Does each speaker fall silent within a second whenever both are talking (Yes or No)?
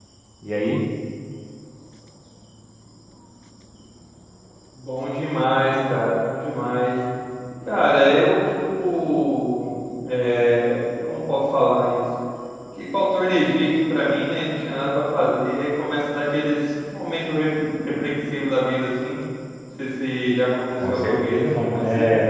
No